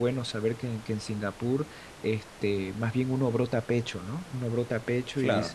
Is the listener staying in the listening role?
Yes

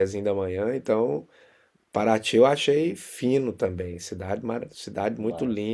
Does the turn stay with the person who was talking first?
Yes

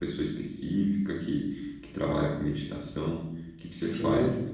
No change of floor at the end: No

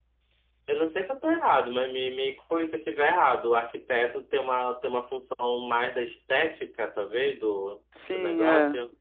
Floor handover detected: Yes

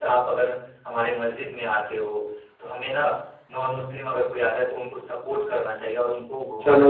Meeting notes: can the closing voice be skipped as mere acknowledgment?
No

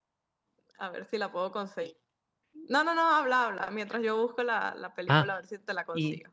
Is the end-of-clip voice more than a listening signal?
Yes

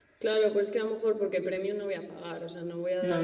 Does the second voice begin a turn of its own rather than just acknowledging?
No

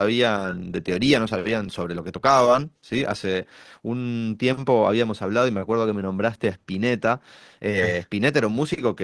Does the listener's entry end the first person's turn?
No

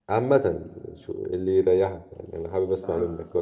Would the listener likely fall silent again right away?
No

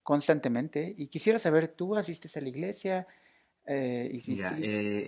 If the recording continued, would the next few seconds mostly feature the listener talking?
Yes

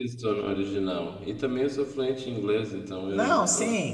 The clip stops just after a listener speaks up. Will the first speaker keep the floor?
No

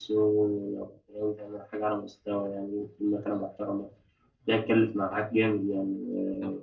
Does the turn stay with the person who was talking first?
No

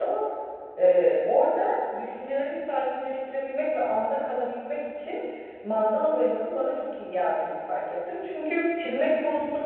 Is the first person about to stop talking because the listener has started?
No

